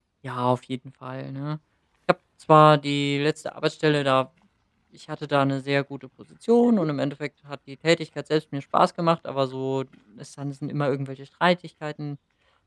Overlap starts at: none

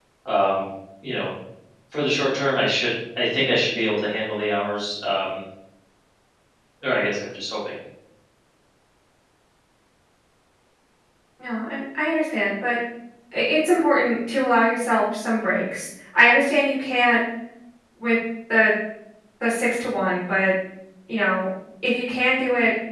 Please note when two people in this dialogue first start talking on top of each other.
none

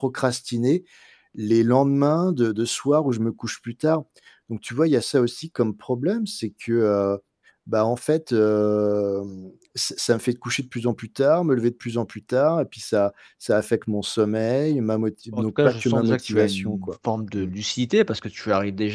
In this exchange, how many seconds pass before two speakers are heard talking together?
15.3 s

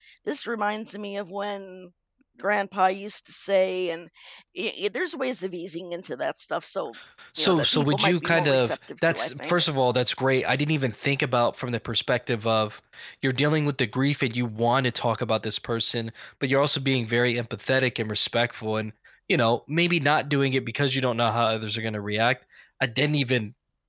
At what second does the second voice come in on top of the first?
7.4 s

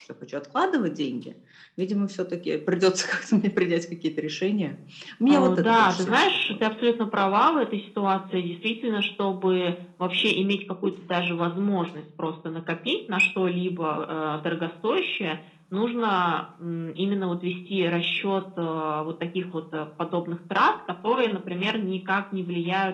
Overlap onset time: 5.3 s

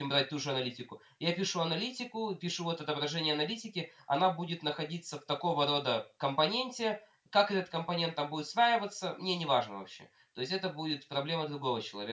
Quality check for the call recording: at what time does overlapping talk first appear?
none

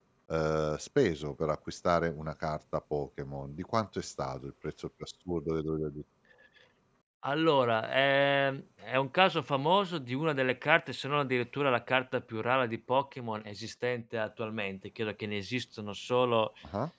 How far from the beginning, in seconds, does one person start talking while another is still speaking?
none

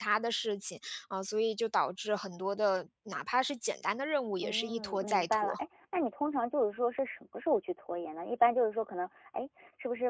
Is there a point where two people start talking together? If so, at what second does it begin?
4.4 s

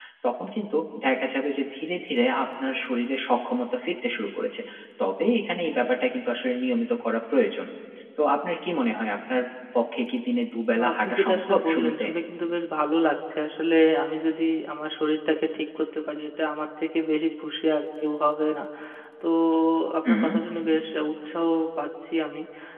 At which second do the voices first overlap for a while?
10.8 s

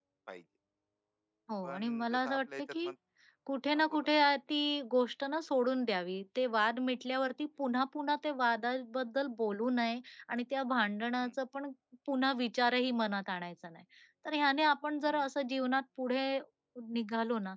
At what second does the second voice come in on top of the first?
1.6 s

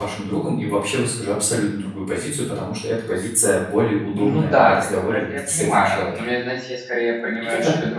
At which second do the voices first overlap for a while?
4.1 s

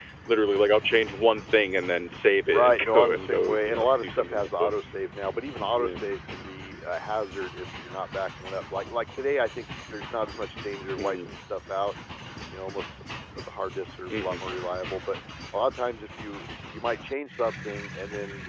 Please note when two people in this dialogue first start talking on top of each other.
2.5 s

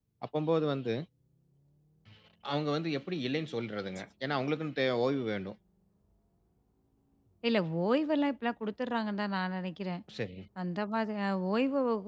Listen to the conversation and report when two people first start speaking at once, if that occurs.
none

